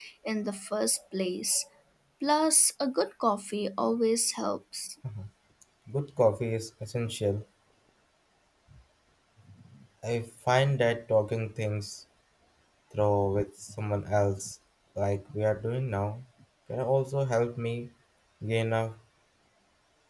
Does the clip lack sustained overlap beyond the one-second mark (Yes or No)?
Yes